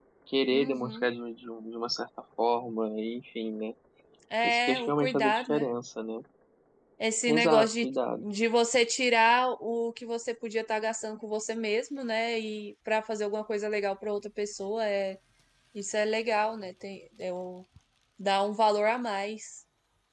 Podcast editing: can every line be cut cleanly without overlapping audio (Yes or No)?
No